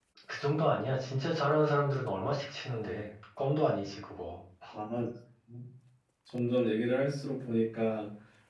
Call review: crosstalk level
none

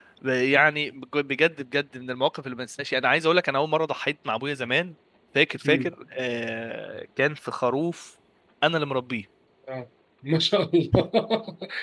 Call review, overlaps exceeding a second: none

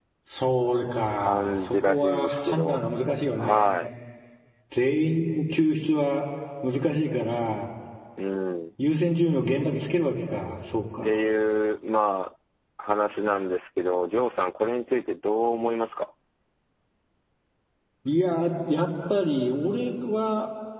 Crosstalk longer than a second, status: present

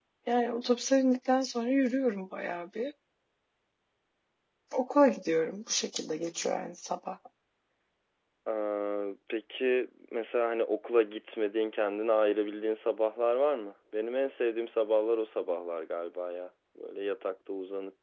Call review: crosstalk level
none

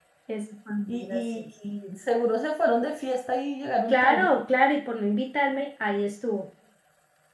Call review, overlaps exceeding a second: none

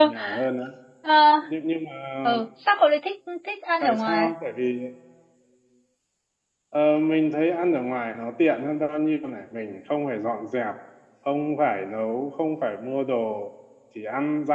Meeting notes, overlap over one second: none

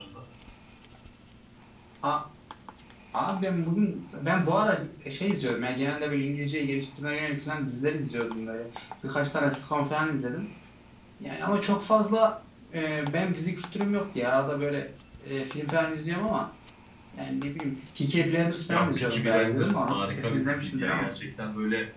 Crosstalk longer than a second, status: present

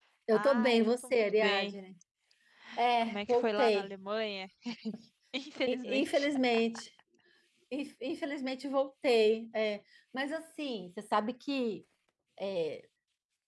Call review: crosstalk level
present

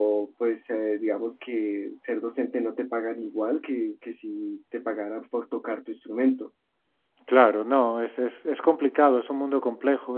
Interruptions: none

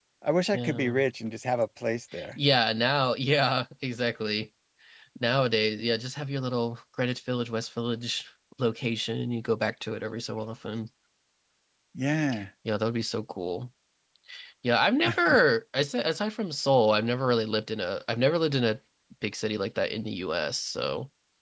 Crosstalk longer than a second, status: none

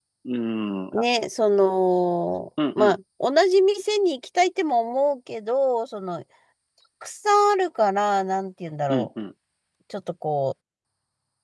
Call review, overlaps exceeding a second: none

